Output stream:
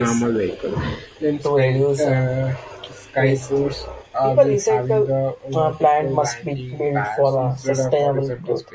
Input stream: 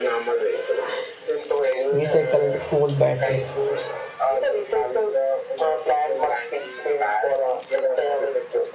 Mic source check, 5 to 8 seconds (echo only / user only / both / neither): echo only